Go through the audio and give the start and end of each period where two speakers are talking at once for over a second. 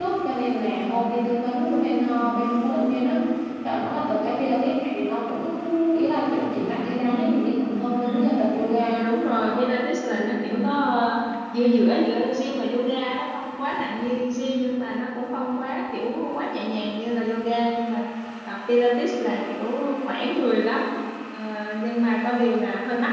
none

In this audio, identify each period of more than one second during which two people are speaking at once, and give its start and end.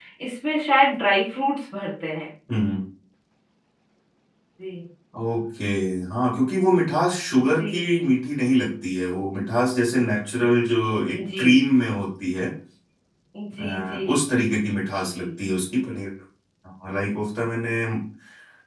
none

